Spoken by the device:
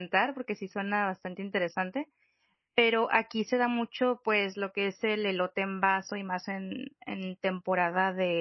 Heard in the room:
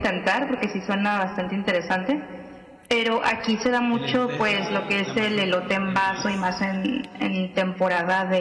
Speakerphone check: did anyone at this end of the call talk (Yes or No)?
Yes